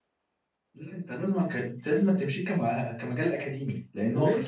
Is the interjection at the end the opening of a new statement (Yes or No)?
Yes